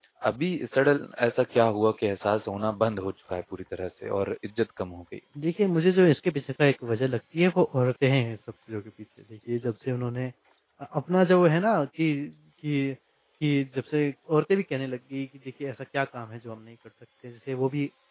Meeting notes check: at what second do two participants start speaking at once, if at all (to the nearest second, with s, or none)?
none